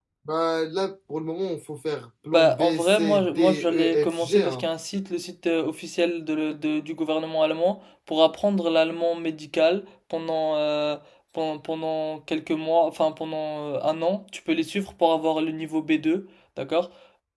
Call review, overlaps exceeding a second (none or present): present